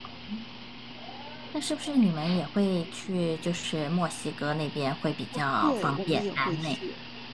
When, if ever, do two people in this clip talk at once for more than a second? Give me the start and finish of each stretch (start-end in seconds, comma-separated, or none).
5.3-6.8